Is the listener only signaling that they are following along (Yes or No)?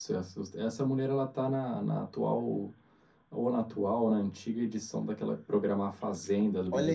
No